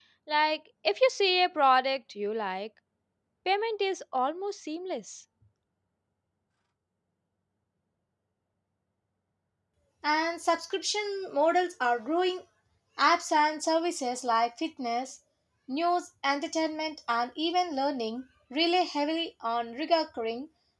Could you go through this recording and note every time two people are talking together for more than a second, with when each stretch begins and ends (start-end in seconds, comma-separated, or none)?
none